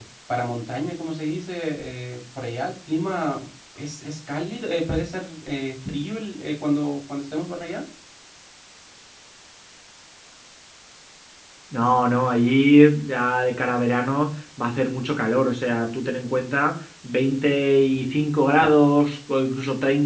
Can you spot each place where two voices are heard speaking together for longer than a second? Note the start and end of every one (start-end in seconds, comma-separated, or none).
none